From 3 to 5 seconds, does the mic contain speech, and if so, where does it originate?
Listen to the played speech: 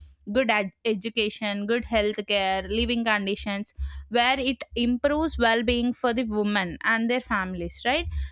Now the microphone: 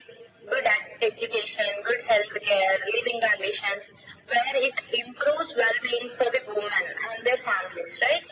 echo only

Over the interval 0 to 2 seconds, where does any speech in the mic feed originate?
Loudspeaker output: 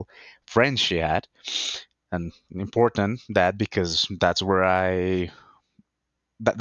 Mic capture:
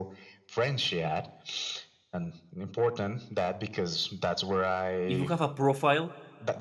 echo only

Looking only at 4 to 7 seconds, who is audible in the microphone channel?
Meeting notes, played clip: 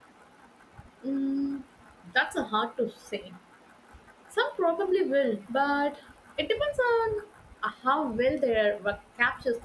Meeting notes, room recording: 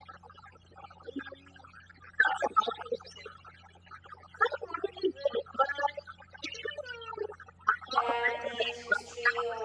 echo only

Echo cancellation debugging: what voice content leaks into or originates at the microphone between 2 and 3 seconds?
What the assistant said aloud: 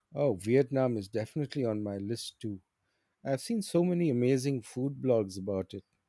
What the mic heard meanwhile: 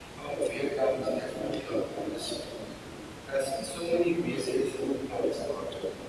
echo only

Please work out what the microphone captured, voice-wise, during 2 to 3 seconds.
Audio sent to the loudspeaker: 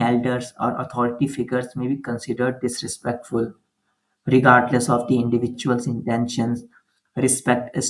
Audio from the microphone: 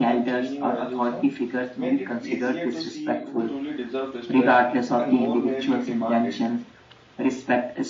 both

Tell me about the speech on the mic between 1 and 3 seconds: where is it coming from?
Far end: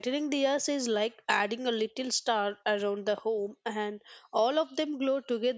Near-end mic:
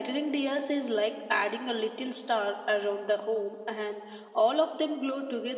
echo only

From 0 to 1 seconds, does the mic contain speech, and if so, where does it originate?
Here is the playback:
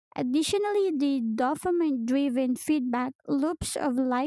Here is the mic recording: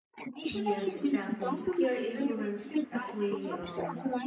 both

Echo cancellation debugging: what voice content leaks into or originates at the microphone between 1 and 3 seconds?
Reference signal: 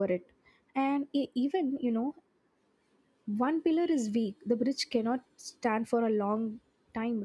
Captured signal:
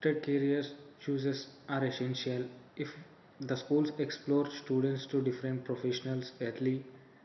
user only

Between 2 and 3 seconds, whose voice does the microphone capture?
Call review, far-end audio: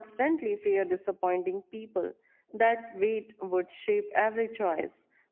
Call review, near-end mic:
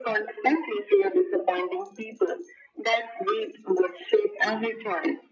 echo only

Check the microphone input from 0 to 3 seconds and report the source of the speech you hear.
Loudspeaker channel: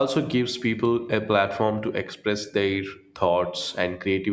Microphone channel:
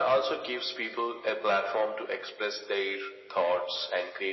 echo only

